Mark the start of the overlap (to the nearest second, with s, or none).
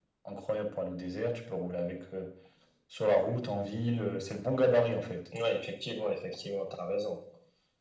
none